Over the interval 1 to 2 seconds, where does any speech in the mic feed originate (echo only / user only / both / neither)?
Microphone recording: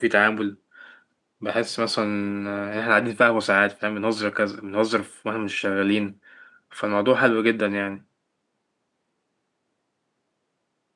user only